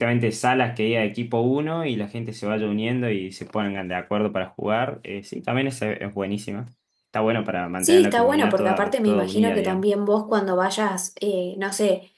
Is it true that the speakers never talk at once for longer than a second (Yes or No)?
No